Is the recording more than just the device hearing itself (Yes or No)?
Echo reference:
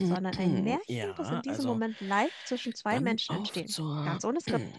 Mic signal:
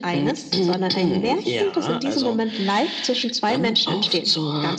No